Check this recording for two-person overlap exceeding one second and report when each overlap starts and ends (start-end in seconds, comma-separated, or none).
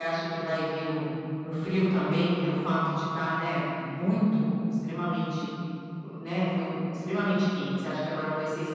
none